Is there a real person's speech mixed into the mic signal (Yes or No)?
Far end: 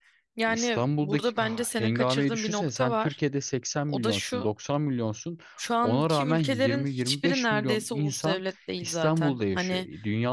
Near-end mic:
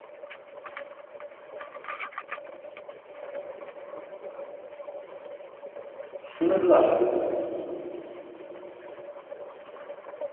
Yes